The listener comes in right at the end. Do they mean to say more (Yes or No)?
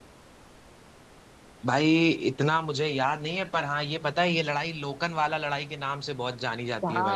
Yes